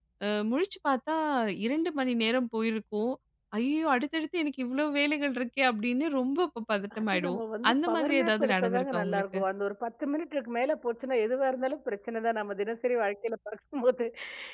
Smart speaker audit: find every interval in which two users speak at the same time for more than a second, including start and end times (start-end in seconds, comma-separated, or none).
7.0-9.4